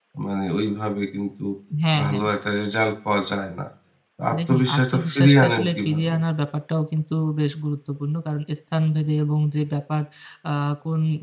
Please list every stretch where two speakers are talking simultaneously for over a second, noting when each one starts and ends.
4.5-6.2

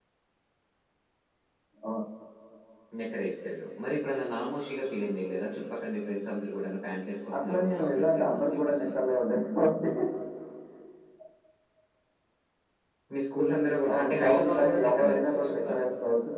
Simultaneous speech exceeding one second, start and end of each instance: 7.5-8.8, 13.9-15.7

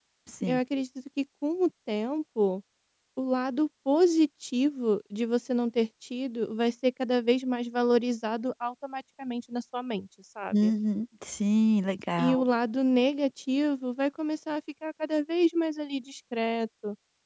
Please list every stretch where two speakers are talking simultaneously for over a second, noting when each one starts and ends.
none

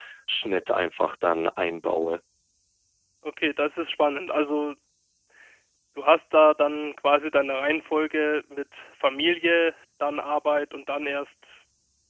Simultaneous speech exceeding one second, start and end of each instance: none

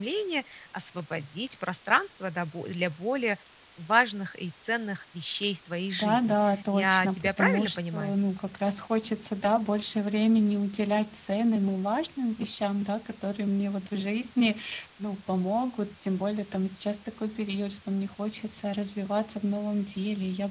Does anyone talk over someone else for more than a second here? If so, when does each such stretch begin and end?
6.0-8.1

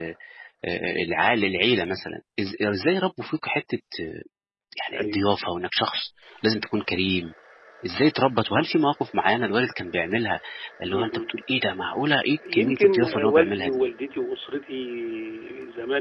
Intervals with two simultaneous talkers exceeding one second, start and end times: 12.5-13.8

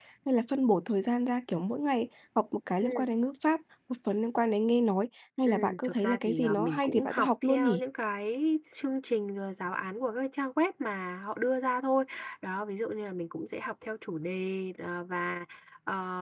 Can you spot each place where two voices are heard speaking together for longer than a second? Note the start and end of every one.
5.4-7.8

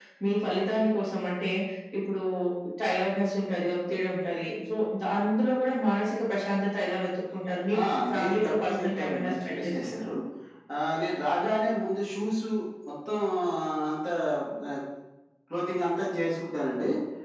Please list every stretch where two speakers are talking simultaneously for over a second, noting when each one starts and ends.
7.7-10.1

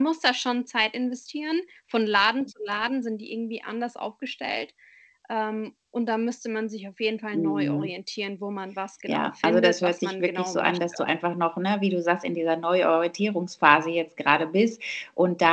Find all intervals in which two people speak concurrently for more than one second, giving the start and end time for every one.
9.1-11.0

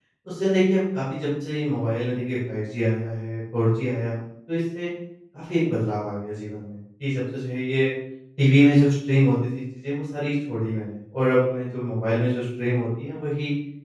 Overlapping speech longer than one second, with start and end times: none

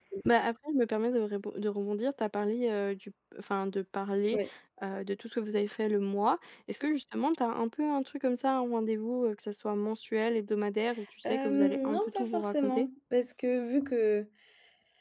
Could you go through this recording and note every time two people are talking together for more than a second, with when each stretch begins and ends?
11.2-12.9

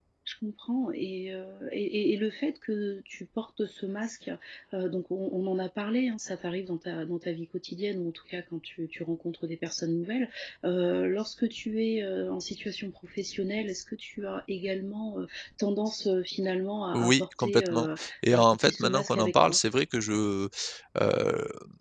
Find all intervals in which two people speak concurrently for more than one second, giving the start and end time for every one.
16.9-19.6

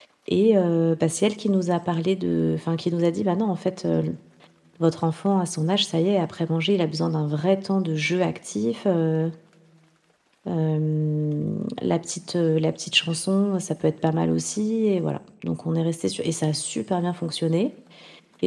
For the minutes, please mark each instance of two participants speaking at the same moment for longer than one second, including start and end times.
none

